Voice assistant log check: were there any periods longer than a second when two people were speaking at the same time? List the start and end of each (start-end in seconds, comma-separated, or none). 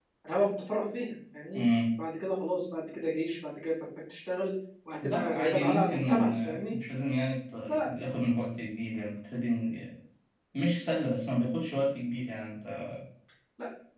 5.0-6.8